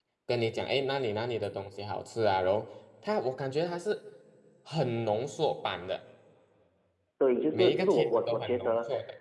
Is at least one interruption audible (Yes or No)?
Yes